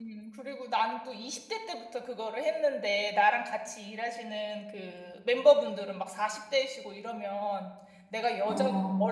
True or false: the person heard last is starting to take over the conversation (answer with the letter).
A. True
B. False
B